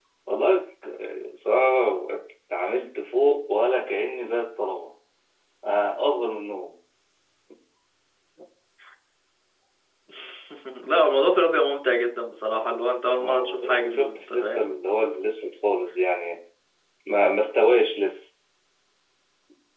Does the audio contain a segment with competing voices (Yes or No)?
Yes